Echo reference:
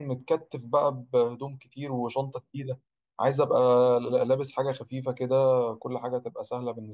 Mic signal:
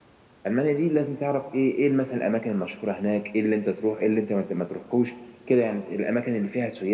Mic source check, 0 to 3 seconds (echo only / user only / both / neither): user only